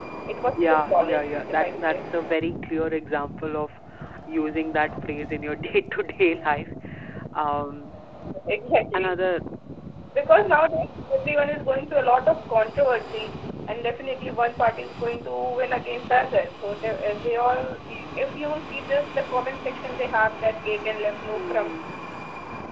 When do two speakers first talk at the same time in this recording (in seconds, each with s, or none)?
0.6 s